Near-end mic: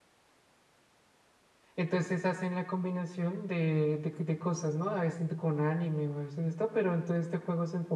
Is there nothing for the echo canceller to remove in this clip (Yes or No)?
Yes